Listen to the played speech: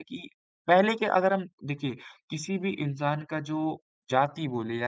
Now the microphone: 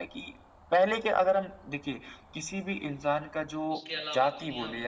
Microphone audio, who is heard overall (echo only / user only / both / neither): both